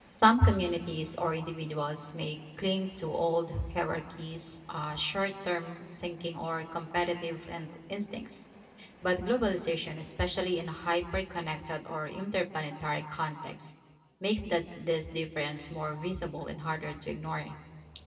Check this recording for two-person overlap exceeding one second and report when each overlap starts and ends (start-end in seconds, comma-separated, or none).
none